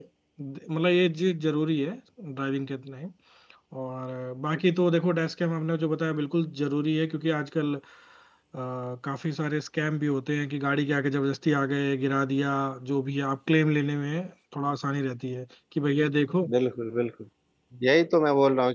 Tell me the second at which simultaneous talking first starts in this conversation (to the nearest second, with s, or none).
none